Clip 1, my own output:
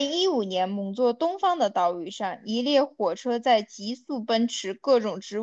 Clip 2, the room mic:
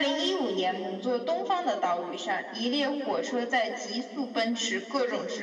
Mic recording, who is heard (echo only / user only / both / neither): echo only